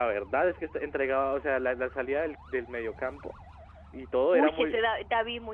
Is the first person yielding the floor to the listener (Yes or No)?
Yes